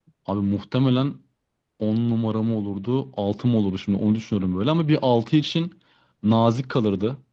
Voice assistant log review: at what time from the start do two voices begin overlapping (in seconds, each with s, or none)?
none